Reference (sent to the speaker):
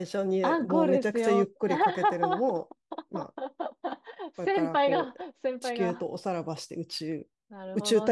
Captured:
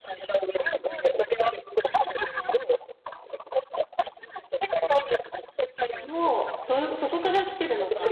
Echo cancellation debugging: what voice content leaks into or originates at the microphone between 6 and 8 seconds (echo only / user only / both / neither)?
both